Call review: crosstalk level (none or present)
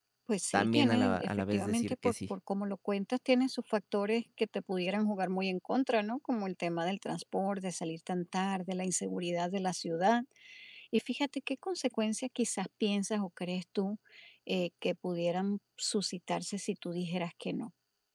present